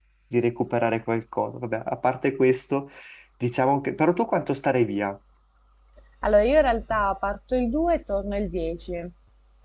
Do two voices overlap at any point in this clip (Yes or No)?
No